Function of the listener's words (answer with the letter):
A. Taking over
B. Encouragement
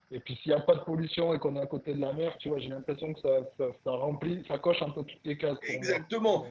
A